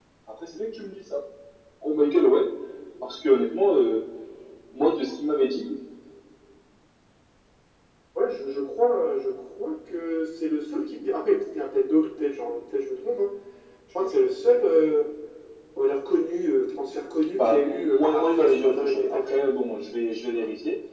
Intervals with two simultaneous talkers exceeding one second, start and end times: 17.3-19.4

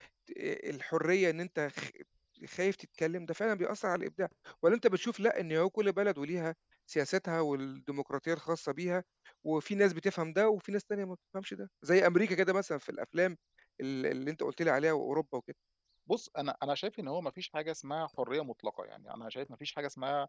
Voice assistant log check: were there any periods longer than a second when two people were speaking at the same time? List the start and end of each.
none

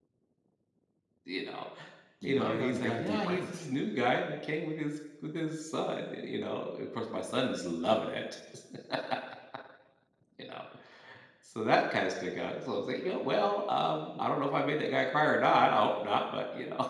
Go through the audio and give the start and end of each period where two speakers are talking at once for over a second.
2.2-3.7

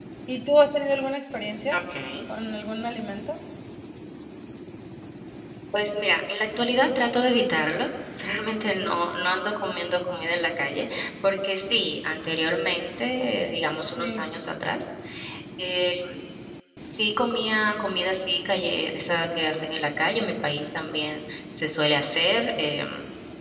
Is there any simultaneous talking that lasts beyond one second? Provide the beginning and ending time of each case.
none

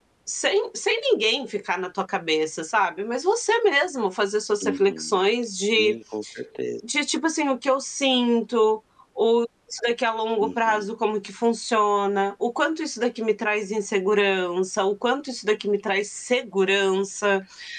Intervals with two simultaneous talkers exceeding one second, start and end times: none

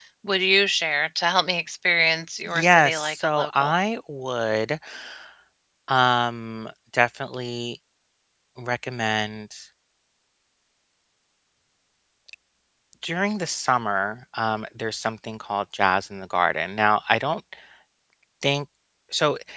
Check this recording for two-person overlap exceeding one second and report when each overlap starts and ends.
2.5-3.7

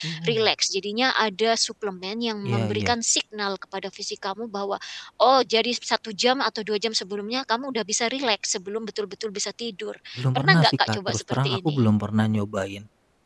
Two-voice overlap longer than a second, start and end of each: 10.3-11.9

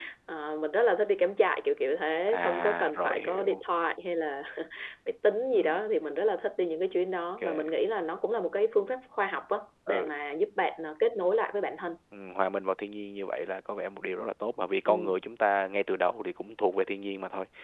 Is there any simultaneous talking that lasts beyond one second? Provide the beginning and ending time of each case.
2.3-3.6

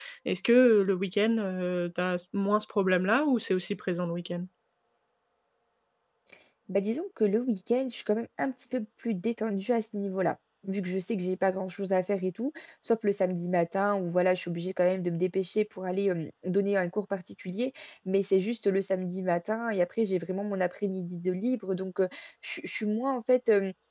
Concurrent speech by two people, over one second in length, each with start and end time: none

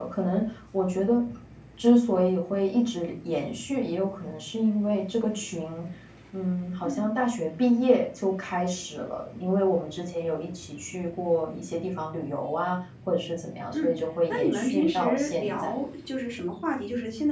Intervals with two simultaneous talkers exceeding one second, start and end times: 14.3-15.7

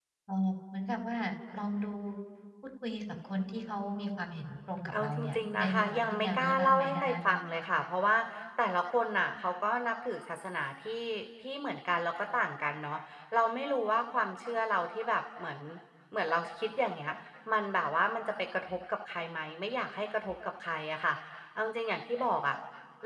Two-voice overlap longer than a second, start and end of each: 4.9-7.2

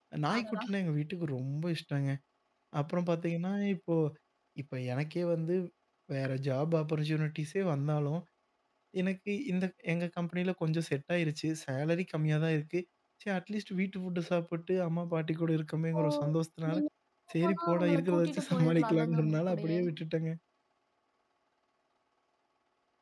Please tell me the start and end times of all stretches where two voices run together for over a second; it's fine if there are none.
17.3-19.8

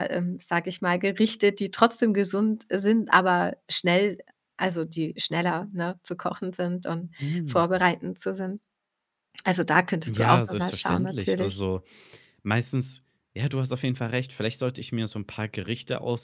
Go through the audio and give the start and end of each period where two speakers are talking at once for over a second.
10.1-11.6

